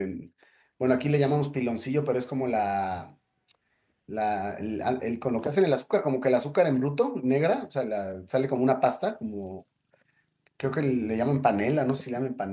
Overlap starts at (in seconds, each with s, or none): none